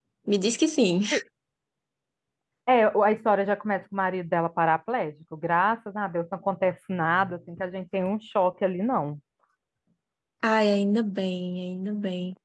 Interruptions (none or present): none